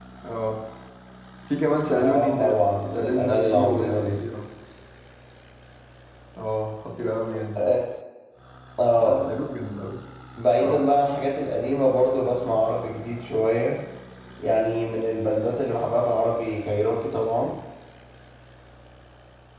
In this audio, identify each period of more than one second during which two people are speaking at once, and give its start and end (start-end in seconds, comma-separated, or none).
1.9-4.2